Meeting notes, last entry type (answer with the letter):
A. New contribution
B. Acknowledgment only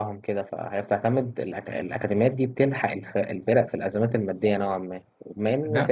A